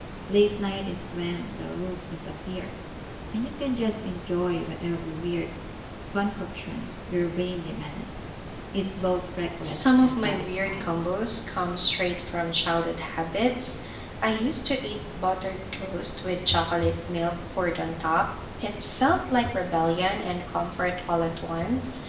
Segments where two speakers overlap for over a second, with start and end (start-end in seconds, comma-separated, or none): 9.6-11.0